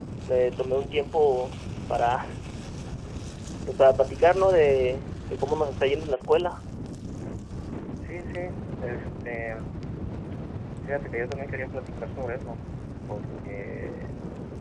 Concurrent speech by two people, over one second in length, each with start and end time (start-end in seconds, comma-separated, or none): none